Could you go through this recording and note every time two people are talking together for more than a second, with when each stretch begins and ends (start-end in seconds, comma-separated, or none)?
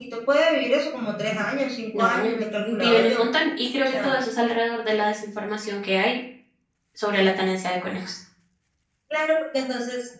1.9-3.2